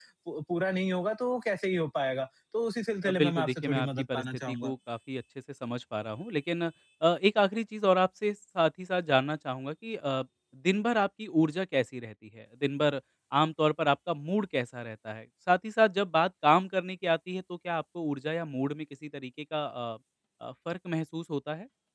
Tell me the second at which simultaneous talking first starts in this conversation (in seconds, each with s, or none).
3.0 s